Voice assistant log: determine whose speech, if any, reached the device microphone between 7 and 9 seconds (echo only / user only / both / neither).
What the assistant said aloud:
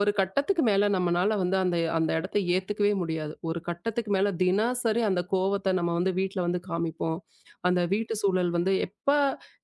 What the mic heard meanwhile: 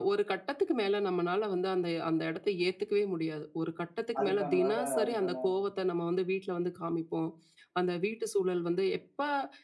echo only